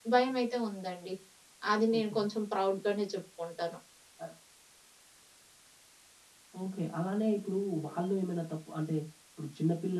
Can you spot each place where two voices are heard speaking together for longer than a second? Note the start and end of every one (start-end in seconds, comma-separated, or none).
none